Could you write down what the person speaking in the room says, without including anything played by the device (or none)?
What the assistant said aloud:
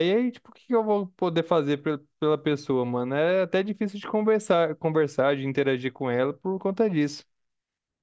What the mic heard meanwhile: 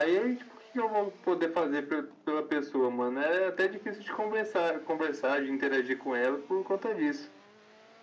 none